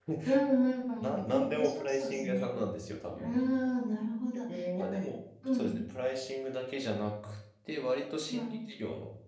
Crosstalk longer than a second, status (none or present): present